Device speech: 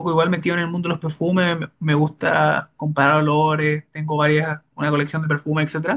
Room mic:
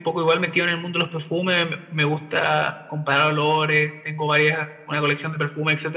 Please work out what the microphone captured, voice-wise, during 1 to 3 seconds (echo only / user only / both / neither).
echo only